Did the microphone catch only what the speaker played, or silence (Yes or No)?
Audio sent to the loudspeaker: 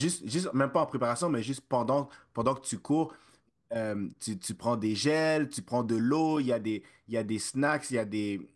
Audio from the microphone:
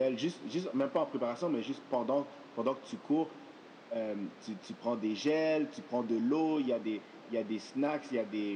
Yes